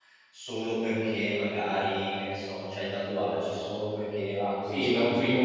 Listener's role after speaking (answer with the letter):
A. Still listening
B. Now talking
B